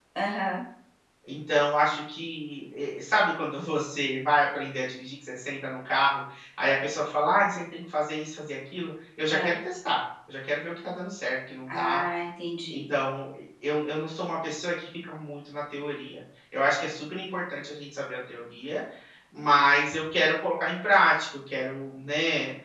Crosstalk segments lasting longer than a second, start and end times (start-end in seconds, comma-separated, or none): none